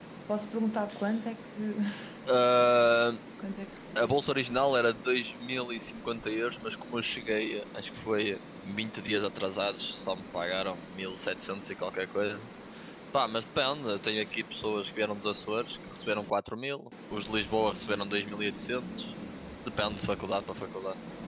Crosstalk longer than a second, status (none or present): none